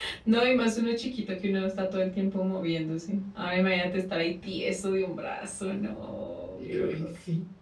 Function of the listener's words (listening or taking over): taking over